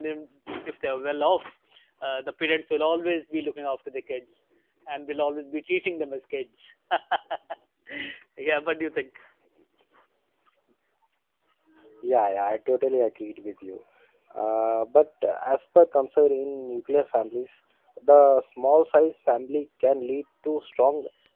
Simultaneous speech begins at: none

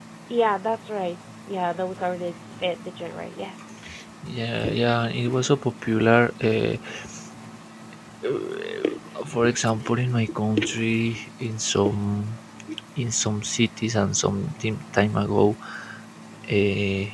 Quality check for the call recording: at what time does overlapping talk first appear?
none

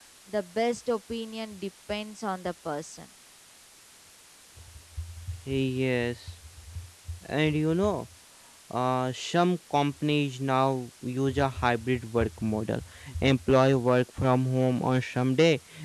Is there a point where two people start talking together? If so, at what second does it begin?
none

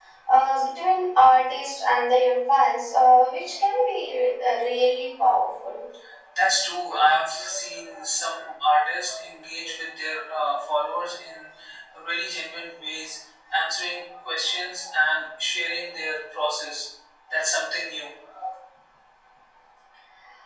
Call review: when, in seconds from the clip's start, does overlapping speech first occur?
none

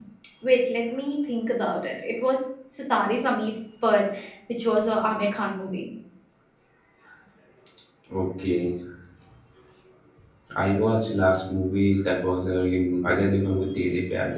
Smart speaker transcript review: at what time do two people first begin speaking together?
none

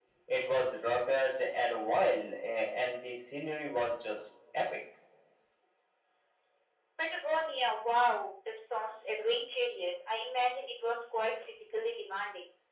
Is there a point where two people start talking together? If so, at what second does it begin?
none

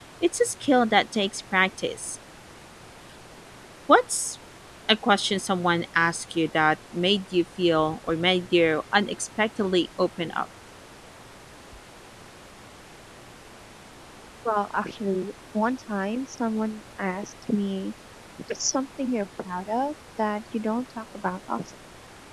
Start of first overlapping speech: none

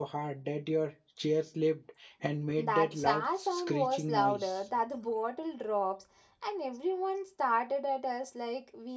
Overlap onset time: 2.5 s

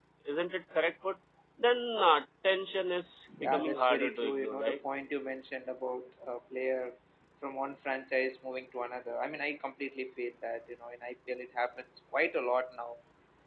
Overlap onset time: 3.3 s

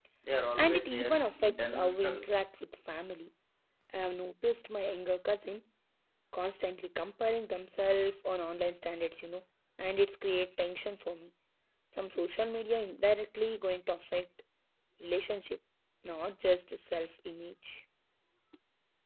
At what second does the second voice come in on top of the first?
0.6 s

